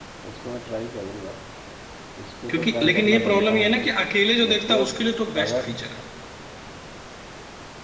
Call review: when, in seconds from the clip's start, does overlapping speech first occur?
2.5 s

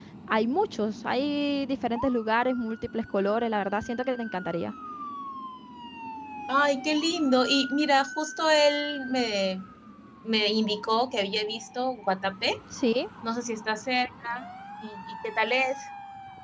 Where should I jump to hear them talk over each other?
none

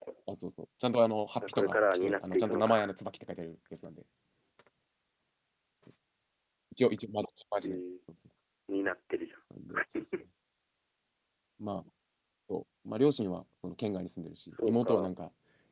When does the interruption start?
1.5 s

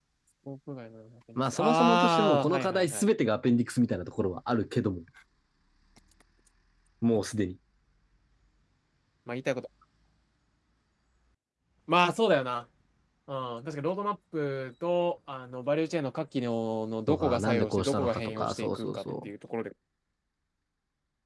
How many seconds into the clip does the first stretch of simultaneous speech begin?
1.4 s

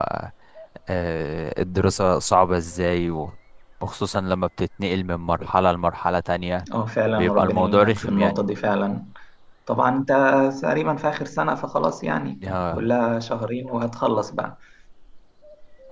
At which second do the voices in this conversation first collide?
7.1 s

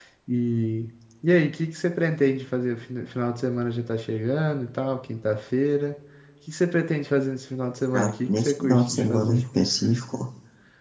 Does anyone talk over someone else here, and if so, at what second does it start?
7.9 s

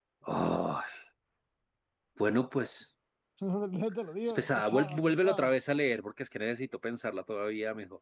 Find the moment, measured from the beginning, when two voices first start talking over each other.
4.3 s

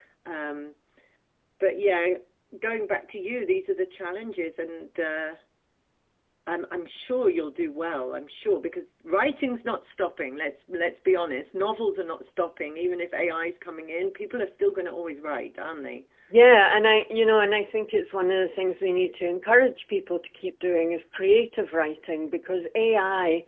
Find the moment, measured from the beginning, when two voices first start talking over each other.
none

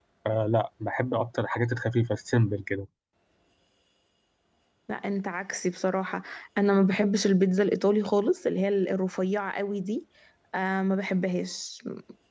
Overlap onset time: none

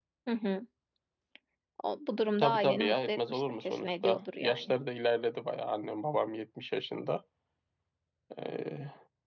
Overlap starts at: 2.4 s

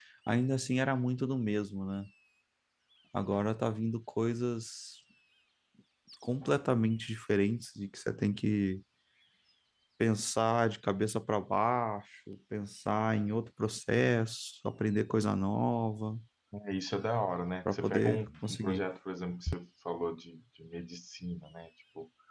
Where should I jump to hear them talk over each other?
17.6 s

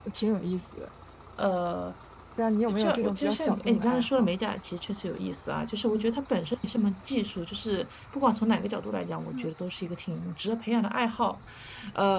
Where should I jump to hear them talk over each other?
2.8 s

